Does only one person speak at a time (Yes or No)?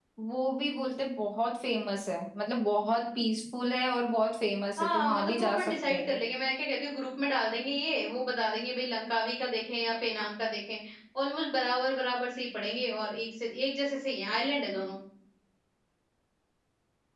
No